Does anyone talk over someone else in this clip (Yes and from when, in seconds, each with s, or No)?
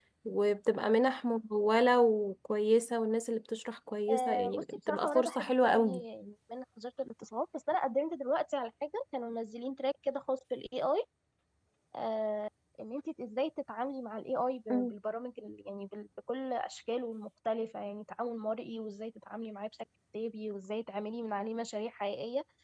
Yes, from 4.1 s